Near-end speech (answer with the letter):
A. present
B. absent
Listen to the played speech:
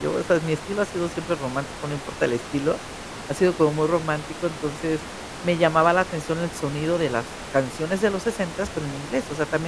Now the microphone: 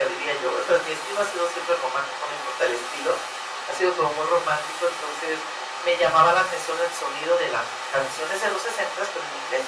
B